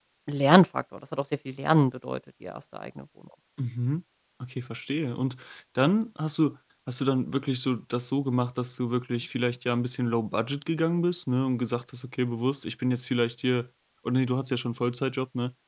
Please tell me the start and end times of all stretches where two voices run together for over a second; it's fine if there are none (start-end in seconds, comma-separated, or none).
none